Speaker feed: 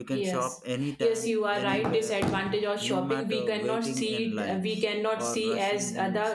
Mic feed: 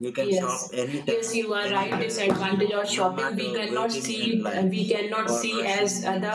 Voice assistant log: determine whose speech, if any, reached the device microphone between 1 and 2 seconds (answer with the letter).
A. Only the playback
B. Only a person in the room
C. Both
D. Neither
A